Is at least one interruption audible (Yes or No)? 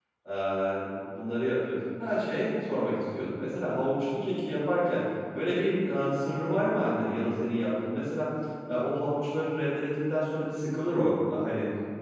No